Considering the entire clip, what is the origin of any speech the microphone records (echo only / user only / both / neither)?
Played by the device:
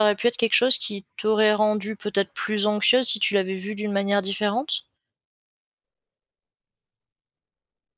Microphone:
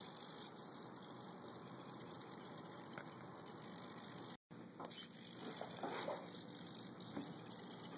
neither